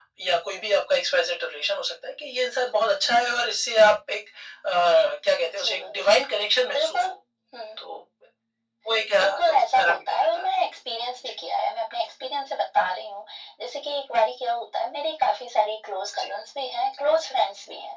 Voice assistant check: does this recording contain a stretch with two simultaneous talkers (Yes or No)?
Yes